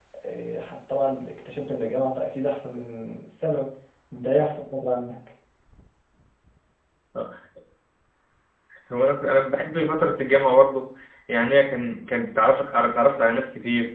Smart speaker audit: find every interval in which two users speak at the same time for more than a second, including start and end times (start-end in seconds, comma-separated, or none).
none